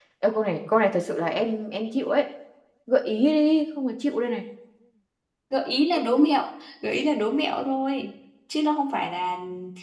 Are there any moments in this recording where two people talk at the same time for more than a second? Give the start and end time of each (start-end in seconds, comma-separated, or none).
none